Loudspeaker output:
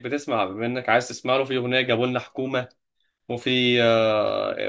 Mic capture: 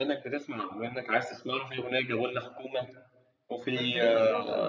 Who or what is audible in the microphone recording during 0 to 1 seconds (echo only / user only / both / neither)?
echo only